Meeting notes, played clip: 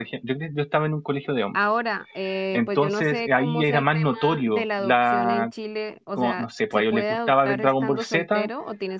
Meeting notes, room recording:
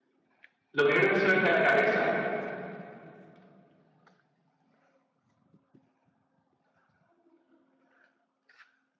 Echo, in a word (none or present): none